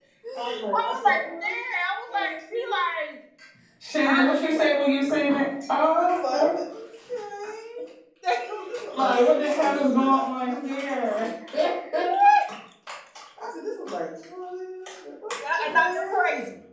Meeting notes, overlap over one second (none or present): present